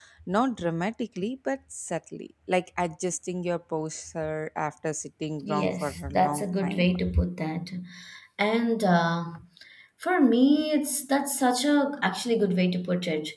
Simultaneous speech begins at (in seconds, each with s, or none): 5.4 s